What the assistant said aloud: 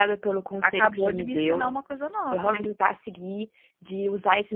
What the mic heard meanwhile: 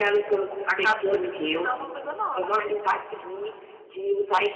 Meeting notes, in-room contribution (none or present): none